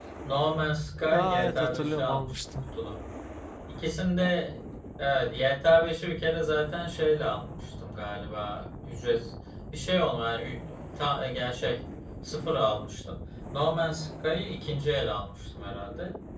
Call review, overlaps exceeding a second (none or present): present